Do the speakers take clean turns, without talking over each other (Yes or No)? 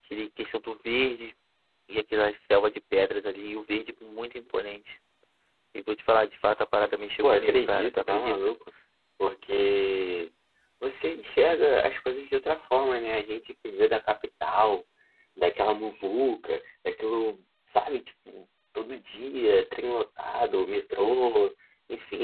No